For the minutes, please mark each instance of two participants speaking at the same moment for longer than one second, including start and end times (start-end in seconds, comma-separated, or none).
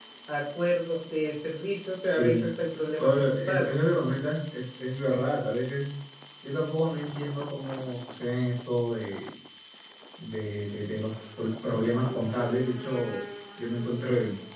2.9-4.2